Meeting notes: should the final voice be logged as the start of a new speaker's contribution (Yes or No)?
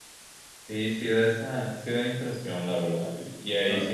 No